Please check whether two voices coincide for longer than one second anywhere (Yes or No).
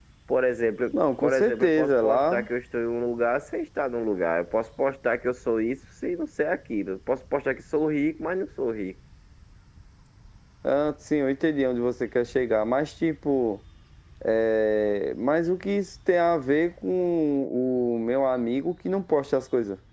Yes